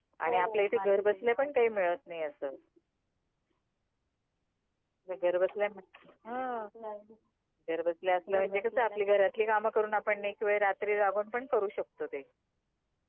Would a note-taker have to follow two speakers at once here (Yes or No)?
Yes